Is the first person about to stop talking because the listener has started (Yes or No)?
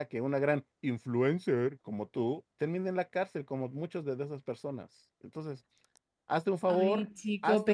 Yes